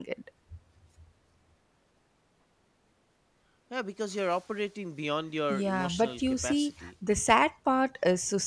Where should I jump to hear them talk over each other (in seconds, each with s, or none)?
5.5 s